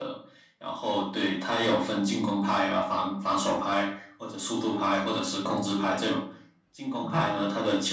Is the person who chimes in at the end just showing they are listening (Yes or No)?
Yes